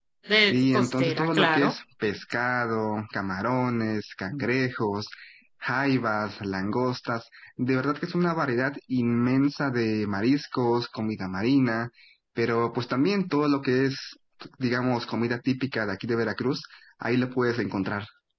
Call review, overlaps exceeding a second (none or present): present